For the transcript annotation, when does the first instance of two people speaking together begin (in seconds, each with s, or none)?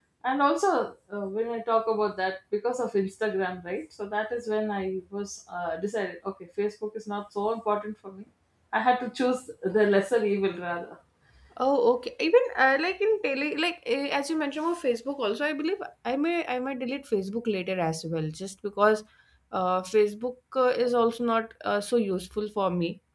none